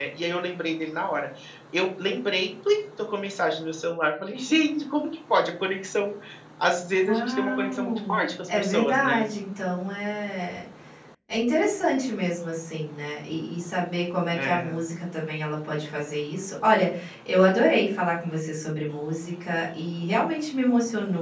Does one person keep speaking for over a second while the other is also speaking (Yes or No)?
Yes